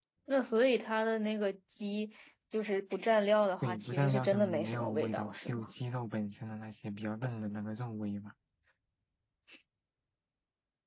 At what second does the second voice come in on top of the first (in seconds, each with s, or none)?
3.6 s